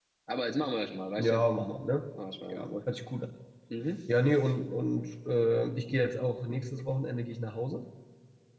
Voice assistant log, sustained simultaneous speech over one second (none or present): none